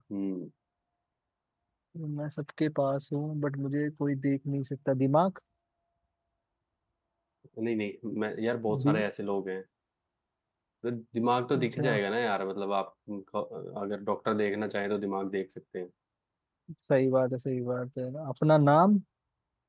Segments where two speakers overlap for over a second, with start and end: none

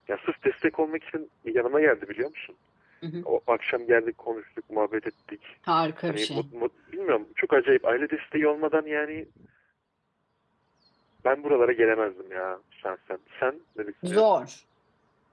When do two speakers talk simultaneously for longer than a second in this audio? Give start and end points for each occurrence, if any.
none

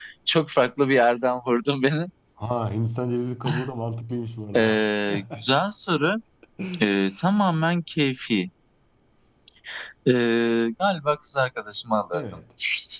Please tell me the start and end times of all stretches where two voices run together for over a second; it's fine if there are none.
none

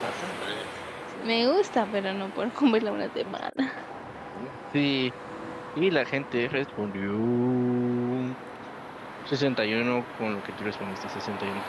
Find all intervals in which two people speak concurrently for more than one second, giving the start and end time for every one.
none

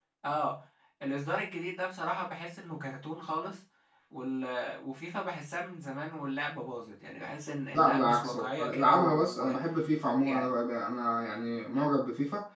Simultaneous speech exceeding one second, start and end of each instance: 7.7-9.6

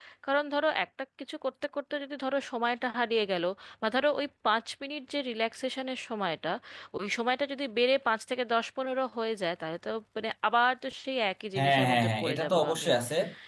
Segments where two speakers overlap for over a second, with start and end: 11.6-12.9

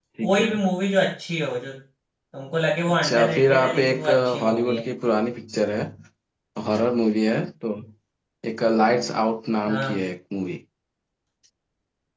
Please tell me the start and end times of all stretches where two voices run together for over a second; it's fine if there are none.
3.0-4.8

